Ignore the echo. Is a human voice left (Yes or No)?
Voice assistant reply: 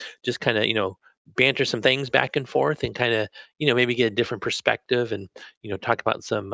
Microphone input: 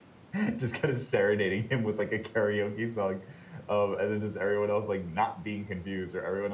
Yes